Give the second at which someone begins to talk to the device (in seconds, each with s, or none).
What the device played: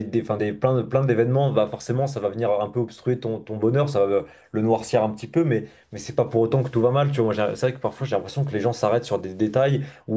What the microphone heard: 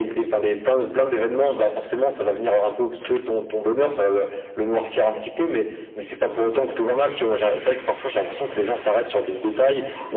none